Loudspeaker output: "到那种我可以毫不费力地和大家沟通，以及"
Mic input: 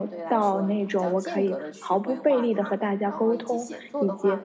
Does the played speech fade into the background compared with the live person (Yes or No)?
No